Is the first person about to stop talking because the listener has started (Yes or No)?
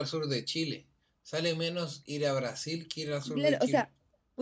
Yes